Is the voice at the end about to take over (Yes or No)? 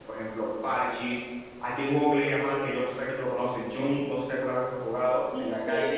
Yes